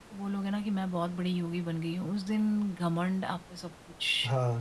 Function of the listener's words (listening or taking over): taking over